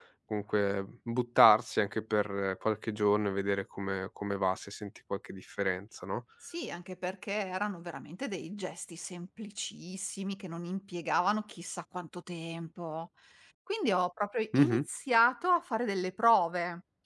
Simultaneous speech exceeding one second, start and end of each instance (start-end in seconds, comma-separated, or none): none